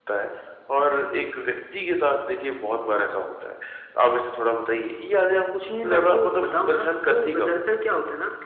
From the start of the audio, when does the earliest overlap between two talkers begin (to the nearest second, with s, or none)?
6 s